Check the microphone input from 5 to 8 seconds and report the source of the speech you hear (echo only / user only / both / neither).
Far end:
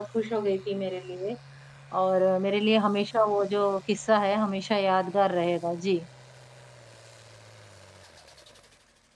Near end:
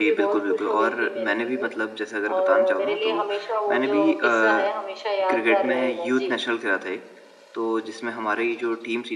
both